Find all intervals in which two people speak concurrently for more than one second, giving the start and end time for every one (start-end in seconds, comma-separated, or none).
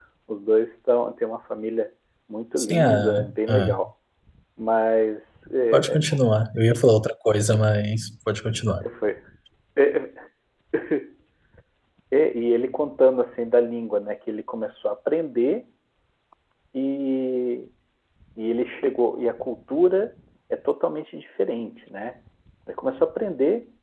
2.6-3.8